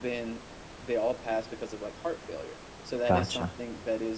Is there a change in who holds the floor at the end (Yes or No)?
No